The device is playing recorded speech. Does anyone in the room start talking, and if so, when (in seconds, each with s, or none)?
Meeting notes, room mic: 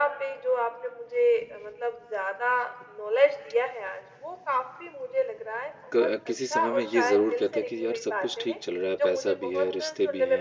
6.0 s